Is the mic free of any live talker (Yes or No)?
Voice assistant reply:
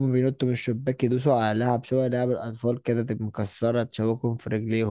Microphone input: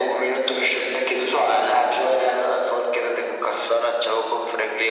Yes